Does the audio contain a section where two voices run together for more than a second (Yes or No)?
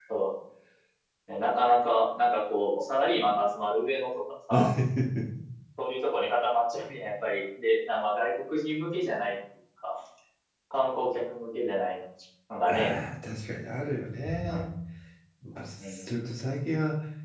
No